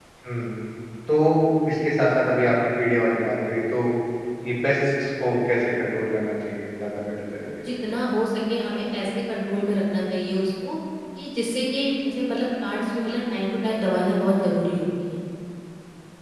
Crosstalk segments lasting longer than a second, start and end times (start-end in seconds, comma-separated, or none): none